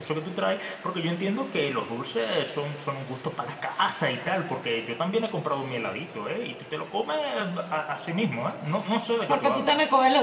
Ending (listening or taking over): taking over